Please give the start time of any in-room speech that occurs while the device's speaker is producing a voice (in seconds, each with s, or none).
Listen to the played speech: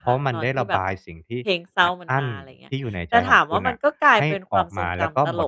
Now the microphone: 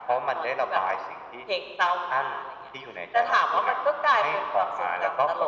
none